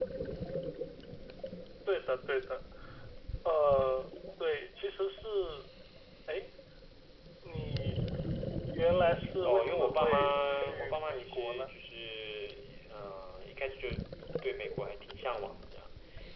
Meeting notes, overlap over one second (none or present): present